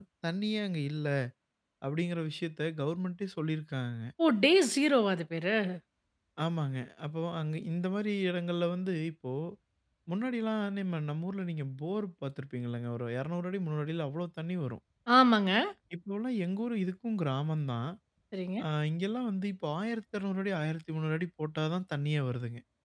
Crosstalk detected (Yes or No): No